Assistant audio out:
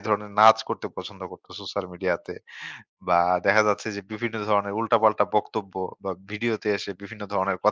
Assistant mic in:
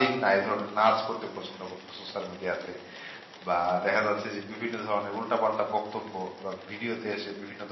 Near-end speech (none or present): none